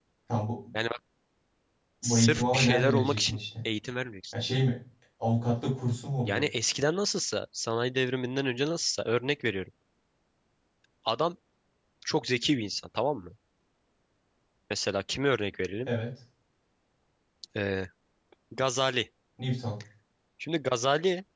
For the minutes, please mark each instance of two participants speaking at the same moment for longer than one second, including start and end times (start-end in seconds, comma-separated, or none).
2.0-3.4